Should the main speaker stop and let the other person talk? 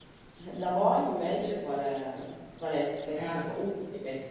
No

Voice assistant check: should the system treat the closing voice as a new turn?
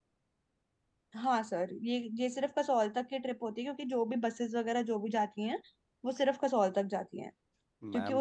No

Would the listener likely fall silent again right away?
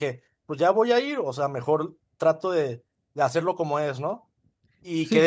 Yes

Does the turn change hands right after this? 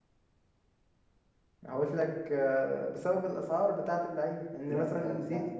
Yes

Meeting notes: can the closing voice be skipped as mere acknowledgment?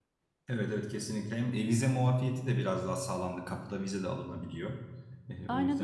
No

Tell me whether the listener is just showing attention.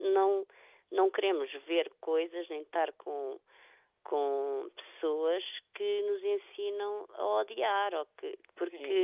No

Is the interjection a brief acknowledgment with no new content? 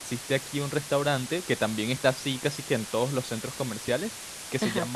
Yes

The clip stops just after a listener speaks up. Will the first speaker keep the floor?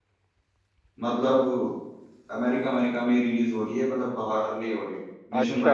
No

